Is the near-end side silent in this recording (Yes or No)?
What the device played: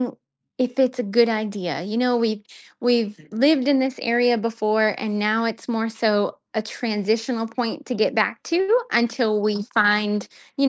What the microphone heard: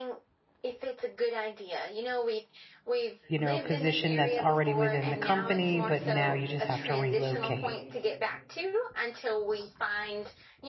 No